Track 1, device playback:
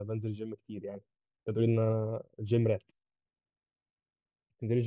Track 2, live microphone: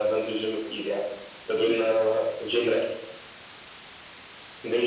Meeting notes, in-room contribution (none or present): none